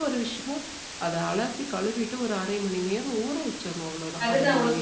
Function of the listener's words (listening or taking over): taking over